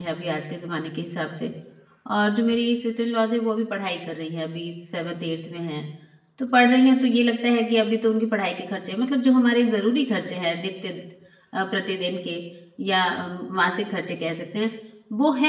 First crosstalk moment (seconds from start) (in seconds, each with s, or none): none